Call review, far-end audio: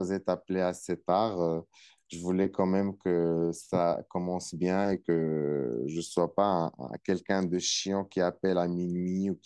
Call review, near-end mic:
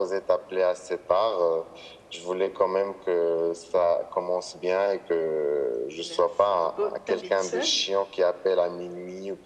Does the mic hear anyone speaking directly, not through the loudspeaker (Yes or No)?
Yes